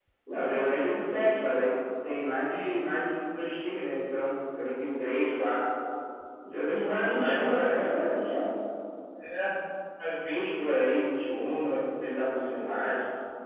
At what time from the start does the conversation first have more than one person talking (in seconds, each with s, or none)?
6.7 s